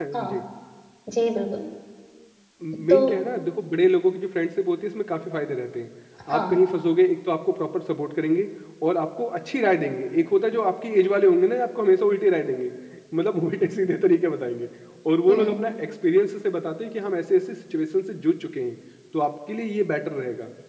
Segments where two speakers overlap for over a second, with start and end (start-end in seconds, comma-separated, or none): none